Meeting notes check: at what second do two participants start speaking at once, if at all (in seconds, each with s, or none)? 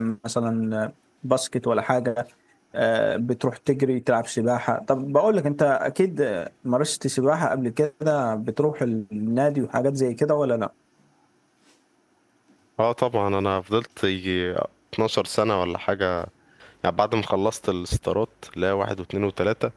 none